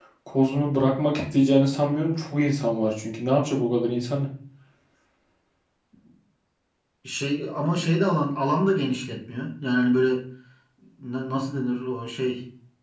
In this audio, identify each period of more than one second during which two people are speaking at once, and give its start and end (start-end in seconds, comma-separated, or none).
none